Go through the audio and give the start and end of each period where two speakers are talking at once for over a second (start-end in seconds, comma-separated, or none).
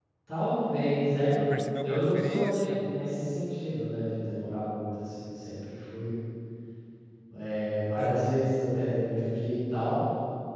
1.4-2.9